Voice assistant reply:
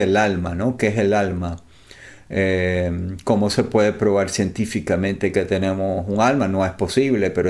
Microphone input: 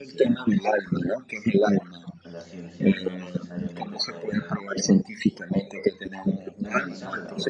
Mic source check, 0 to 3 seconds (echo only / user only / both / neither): both